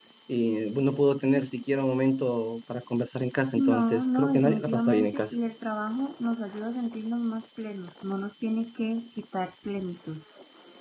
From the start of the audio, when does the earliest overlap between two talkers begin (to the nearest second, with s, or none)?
4 s